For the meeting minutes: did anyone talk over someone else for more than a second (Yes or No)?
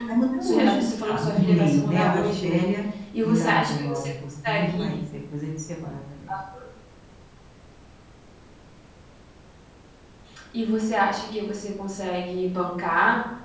Yes